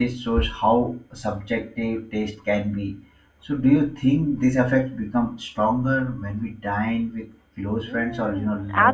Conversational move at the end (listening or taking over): taking over